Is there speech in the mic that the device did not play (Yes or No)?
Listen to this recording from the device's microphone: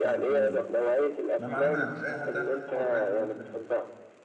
Yes